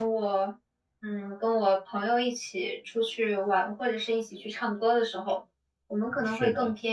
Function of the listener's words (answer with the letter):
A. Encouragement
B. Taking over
A